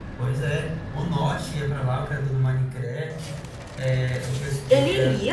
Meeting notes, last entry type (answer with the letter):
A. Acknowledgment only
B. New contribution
A